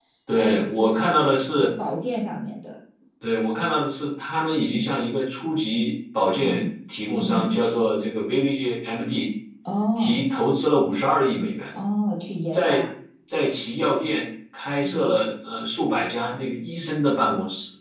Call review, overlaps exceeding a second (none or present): present